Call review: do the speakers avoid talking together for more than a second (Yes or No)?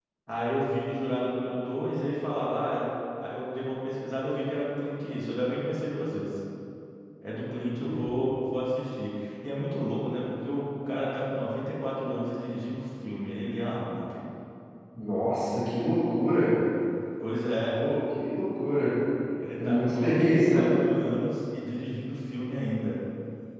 No